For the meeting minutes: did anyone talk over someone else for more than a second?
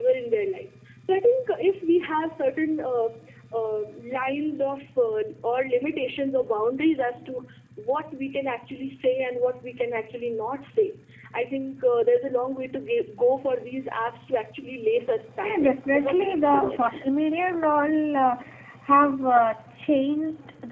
Yes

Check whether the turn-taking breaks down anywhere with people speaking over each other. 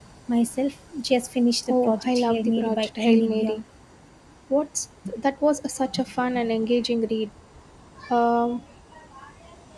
Yes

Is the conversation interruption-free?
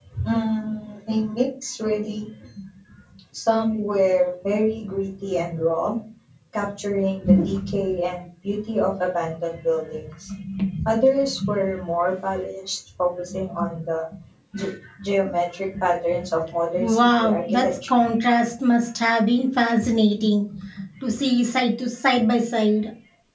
No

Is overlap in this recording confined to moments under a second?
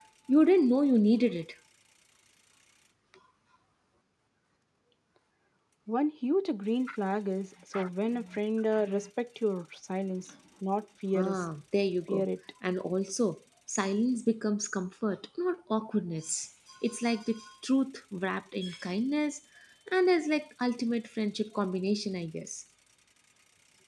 Yes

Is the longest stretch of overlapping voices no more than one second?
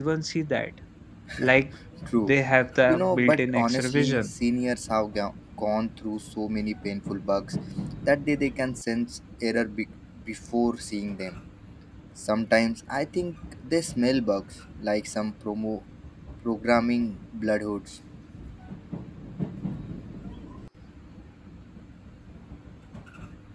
No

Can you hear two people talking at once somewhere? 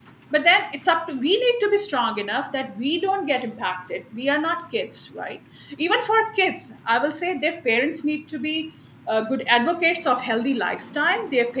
No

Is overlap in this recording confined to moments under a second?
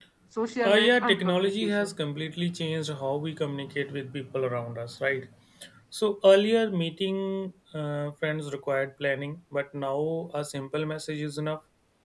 No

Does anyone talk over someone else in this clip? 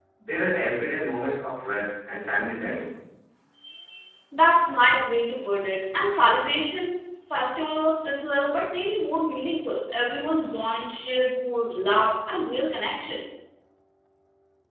No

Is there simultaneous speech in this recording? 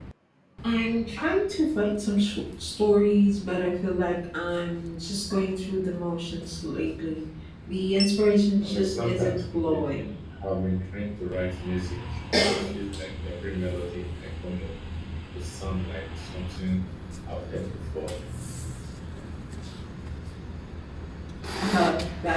Yes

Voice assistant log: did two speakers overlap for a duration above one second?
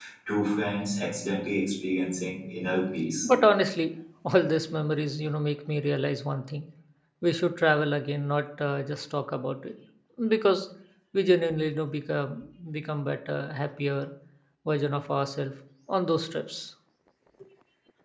No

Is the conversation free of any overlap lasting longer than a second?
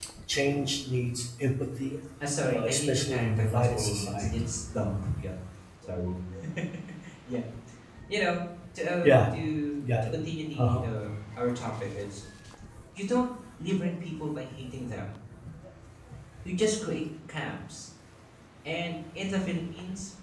No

